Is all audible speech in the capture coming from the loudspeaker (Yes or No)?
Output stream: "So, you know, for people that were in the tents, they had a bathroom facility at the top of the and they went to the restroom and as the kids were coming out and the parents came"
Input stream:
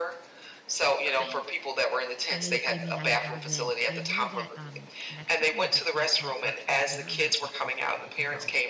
No